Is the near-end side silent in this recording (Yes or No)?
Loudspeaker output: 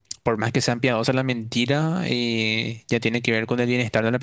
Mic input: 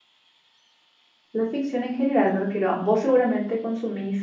No